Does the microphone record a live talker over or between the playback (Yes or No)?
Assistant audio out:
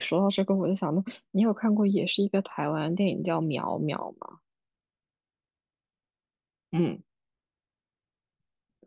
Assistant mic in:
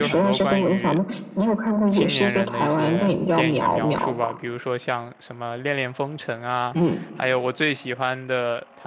Yes